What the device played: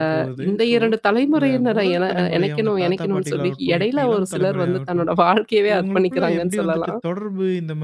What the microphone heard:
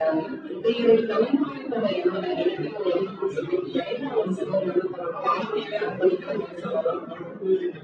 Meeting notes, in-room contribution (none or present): none